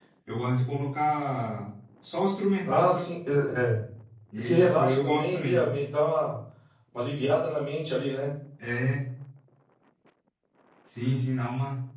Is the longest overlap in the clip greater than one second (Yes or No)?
Yes